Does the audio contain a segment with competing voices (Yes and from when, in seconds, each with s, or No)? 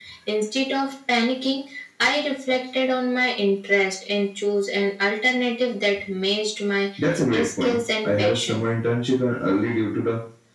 Yes, from 7.4 s